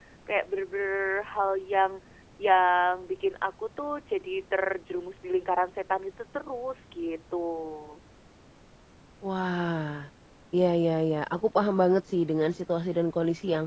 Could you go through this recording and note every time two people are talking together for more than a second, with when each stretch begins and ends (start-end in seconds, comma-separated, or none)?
none